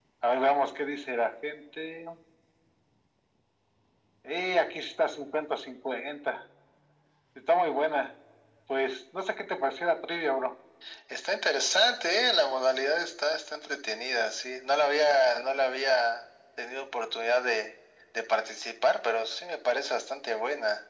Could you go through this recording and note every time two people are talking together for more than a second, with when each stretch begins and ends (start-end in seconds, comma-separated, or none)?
none